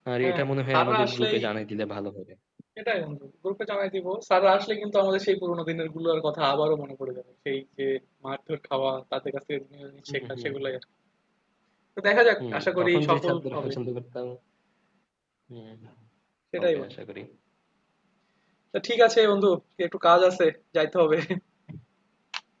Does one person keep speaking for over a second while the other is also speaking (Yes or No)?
Yes